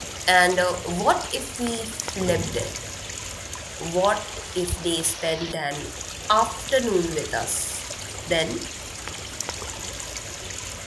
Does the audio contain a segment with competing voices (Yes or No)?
No